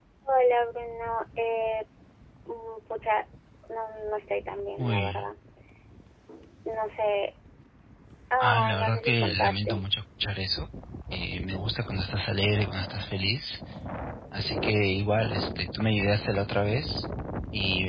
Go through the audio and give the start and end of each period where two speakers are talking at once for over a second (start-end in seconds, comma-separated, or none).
8.4-9.9